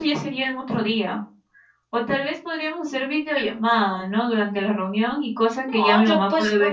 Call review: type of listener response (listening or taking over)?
taking over